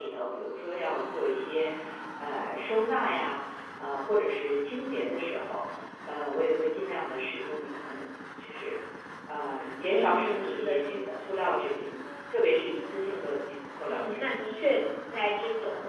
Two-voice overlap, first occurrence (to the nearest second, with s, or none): 10 s